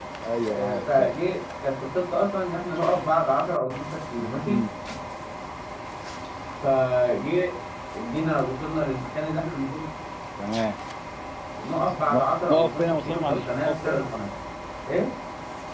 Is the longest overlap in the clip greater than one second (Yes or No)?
Yes